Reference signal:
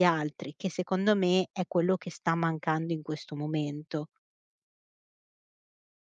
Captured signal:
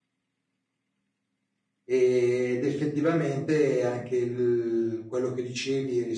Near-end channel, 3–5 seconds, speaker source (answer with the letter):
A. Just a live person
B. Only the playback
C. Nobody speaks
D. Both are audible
A